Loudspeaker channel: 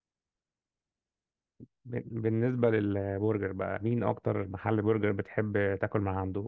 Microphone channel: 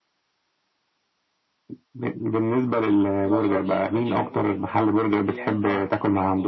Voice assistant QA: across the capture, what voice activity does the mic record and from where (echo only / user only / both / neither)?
both